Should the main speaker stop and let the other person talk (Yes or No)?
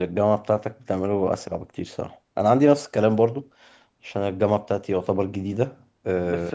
Yes